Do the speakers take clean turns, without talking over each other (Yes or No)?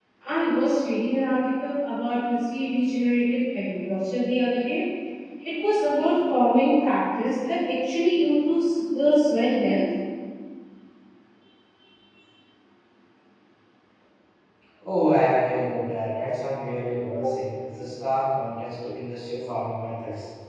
Yes